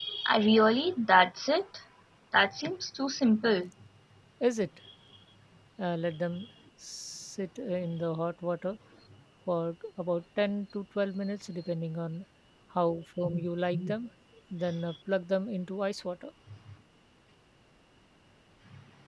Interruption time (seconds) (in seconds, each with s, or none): none